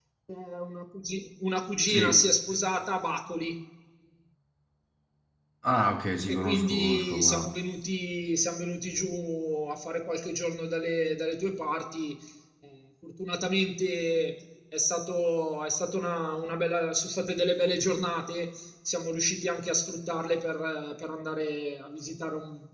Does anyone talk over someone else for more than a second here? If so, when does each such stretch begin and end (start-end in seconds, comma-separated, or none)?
6.3-7.5